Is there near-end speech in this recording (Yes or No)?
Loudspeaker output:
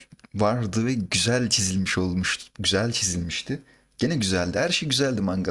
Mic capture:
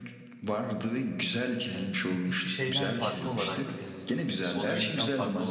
Yes